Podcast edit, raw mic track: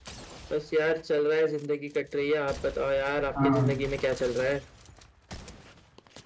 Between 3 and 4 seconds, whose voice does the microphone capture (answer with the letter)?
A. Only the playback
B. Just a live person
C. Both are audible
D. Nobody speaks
C